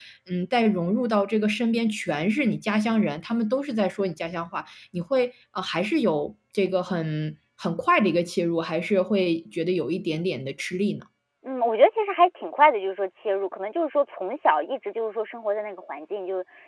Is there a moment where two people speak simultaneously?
No

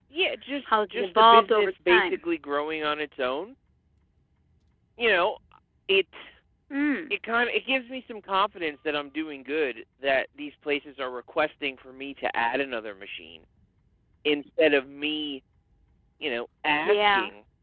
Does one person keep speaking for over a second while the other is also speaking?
Yes, from 0.7 s

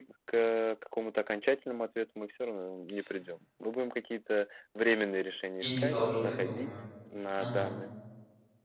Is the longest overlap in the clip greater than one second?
Yes, from 5.6 s

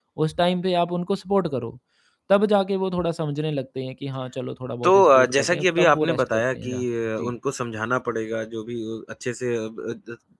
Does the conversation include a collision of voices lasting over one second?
Yes, from 4.8 s

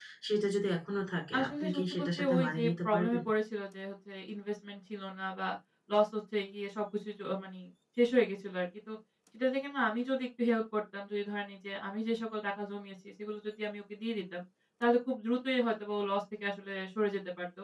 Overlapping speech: Yes, from 1.3 s

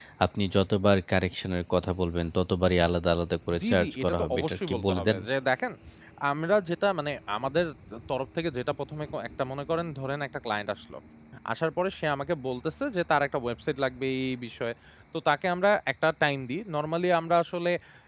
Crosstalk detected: Yes, from 3.5 s

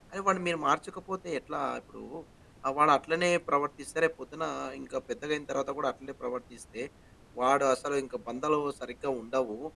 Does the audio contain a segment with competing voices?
No

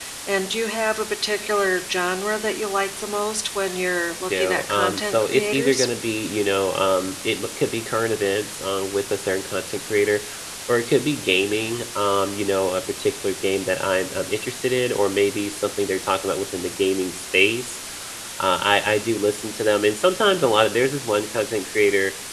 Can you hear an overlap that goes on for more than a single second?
Yes, from 4.3 s

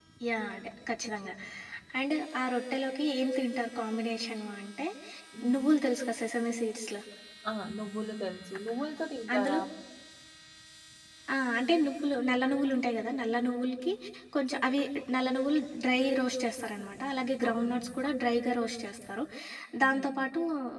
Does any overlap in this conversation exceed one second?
No

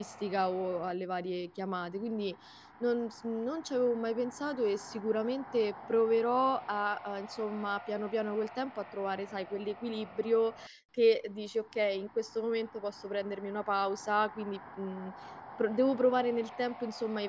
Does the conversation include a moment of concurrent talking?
No

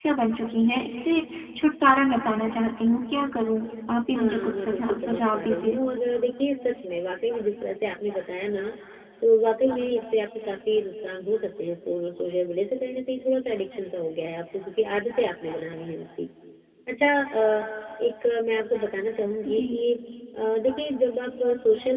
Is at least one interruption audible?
Yes, from 4.1 s

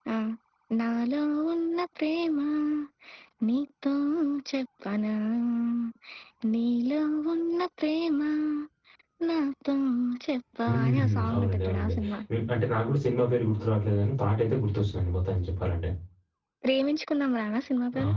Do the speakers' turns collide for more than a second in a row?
Yes, from 10.7 s

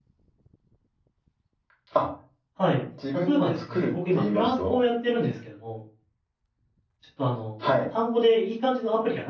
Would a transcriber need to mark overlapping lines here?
Yes, from 3.3 s

